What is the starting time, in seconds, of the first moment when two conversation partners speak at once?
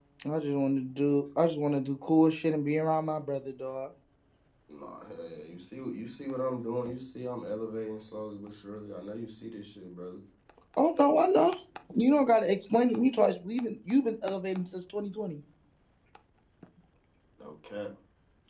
none

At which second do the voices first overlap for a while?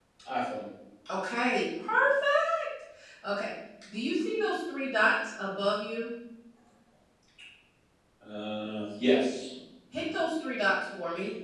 none

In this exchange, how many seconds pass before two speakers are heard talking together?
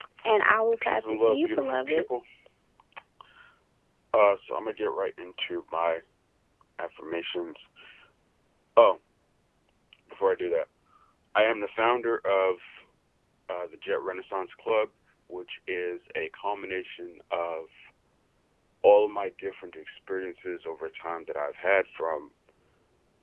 0.8 s

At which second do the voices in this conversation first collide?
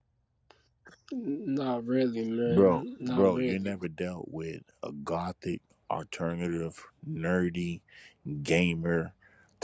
2.5 s

